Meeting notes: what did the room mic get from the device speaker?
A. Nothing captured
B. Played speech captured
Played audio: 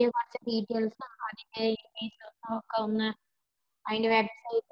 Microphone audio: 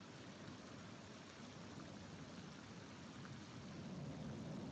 A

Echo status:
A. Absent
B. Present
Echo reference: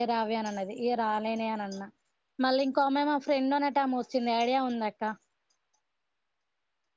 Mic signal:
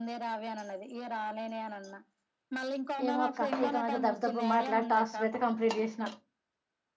B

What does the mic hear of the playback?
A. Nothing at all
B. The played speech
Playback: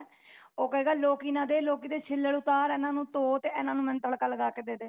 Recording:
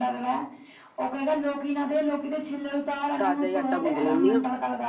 B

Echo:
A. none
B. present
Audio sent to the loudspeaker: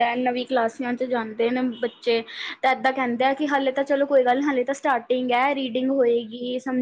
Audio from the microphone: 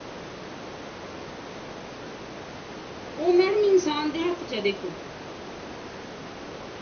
A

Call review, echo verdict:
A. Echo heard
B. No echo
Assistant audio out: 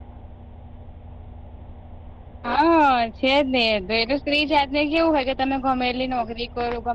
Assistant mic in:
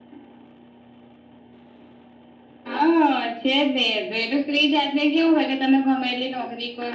A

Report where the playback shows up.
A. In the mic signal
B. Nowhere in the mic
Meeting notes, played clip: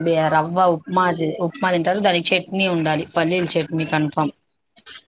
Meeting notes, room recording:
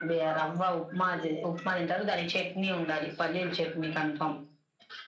A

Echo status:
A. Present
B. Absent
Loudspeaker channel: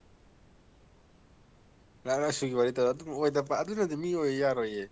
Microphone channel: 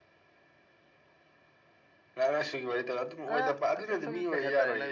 A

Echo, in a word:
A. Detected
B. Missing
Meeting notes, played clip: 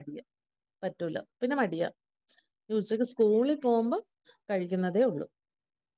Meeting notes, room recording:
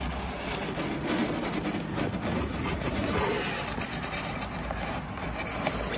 B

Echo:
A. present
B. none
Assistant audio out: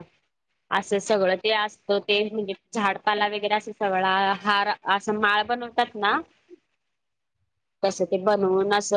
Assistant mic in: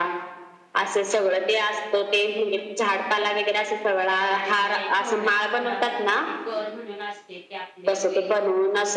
A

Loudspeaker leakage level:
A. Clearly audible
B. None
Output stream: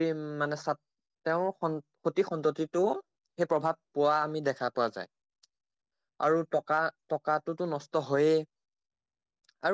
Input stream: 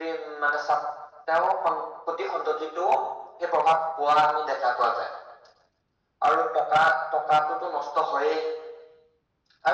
A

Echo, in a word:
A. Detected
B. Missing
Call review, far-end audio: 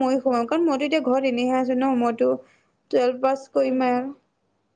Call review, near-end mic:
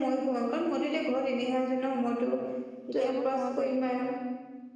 A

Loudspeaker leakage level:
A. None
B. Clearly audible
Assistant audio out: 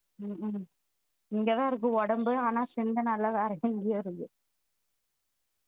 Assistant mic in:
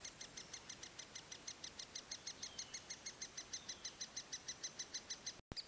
A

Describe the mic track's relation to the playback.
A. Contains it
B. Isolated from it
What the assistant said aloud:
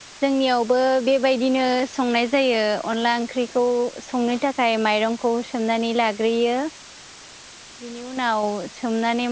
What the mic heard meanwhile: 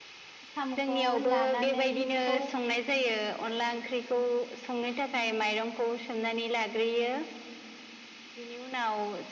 A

